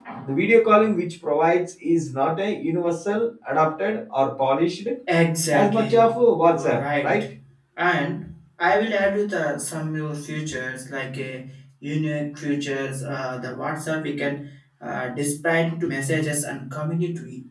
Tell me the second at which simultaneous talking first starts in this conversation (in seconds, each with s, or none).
5.5 s